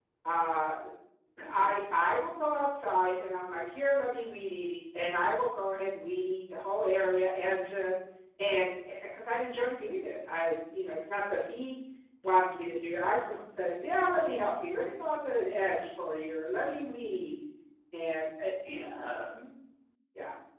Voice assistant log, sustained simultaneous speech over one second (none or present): none